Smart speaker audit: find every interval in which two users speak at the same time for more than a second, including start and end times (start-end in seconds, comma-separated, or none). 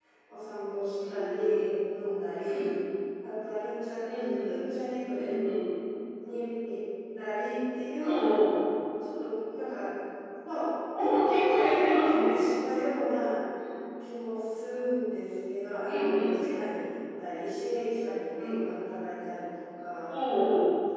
11.0-12.4